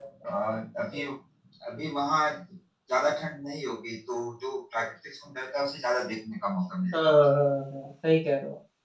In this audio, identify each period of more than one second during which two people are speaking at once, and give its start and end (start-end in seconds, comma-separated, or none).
none